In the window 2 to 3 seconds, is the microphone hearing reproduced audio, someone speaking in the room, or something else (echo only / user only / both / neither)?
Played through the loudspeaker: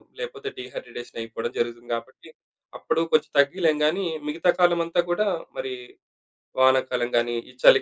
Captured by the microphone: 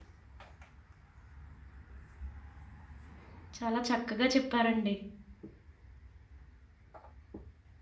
neither